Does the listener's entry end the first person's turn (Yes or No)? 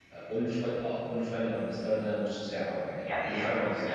Yes